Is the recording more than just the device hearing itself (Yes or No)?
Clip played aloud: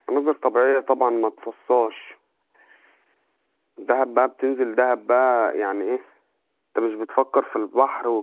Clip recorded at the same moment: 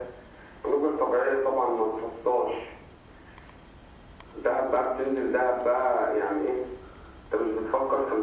No